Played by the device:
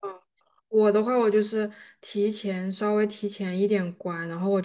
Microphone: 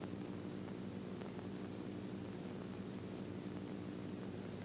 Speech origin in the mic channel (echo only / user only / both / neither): neither